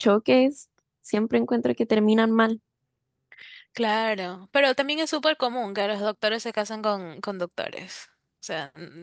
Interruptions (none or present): none